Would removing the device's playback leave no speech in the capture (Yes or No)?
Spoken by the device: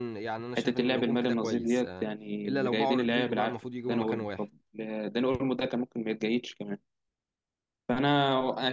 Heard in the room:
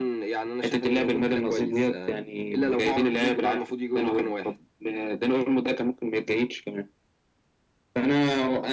Yes